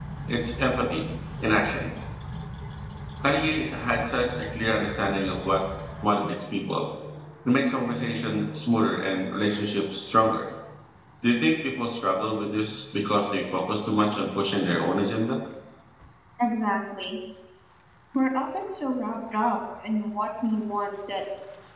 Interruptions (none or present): none